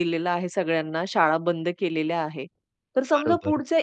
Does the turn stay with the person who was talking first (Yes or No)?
Yes